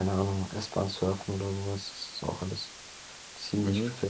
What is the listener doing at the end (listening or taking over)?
taking over